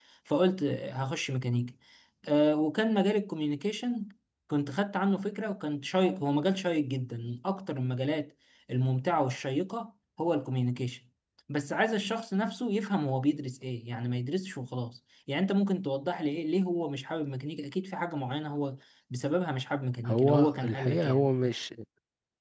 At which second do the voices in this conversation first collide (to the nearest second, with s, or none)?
20 s